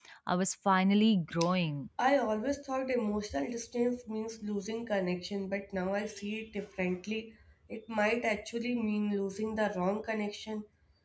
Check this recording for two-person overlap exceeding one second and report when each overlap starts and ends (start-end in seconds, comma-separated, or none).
none